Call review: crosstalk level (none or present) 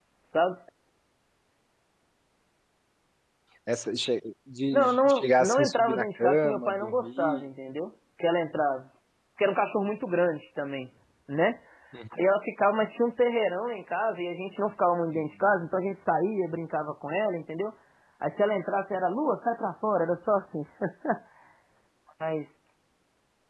present